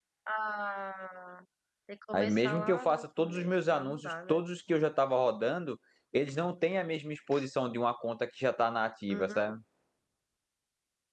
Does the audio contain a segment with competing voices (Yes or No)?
Yes